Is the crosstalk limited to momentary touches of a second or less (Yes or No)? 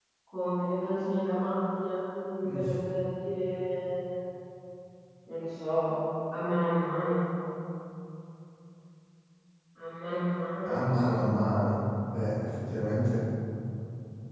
Yes